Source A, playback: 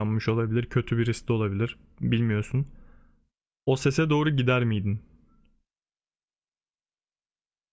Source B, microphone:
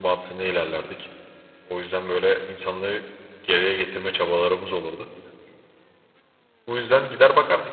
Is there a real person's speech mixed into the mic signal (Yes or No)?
Yes